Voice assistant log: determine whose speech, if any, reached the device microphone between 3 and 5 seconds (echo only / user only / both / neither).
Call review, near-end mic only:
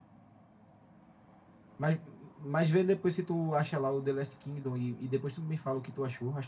user only